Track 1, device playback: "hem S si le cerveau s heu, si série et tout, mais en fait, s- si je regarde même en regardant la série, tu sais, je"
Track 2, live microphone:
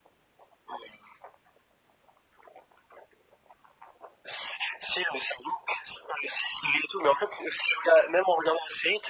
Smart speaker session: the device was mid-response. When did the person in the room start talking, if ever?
none

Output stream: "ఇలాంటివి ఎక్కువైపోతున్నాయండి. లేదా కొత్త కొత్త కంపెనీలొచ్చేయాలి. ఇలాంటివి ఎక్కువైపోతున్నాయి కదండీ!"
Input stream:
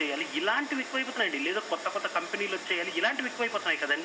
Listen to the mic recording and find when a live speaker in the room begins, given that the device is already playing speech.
none

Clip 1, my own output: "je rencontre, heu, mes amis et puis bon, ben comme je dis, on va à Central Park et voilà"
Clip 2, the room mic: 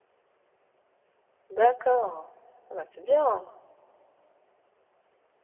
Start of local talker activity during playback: 2 s

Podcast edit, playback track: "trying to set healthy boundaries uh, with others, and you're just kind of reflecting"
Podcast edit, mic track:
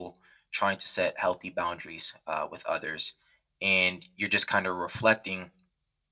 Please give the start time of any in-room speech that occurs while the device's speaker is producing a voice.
none

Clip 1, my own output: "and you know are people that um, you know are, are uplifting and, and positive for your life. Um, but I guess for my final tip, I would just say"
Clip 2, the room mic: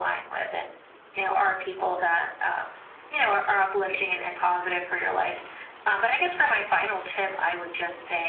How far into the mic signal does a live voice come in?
none

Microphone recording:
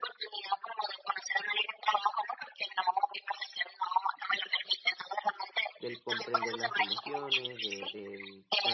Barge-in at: 6 s

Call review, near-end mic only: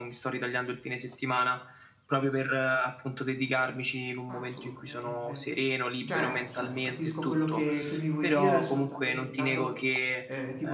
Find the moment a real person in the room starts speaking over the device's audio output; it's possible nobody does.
4 s

